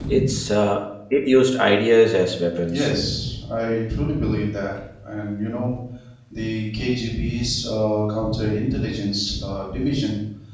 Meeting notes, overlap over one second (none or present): none